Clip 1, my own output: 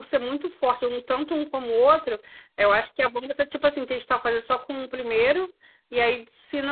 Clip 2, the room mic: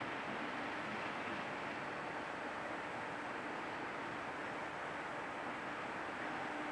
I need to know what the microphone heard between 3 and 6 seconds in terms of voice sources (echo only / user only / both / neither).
neither